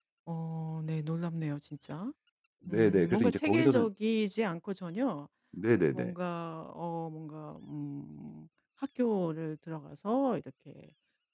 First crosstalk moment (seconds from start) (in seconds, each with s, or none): 2.7 s